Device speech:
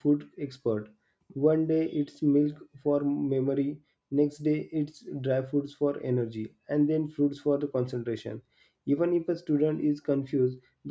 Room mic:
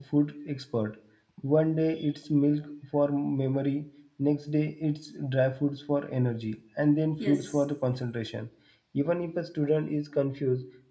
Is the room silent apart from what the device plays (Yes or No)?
No